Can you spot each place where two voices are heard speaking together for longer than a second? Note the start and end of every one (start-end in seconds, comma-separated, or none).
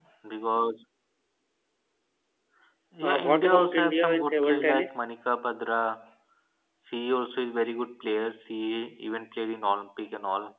3.0-5.0